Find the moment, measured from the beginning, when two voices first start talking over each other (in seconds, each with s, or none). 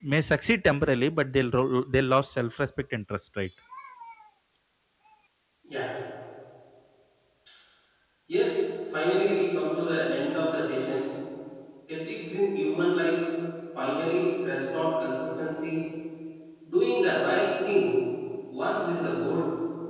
none